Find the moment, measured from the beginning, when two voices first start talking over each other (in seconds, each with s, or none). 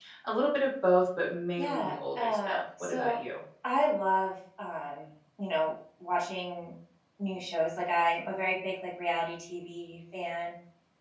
1.6 s